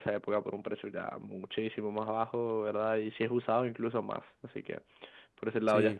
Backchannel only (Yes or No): Yes